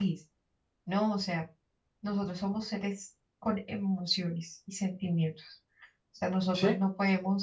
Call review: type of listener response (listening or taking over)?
listening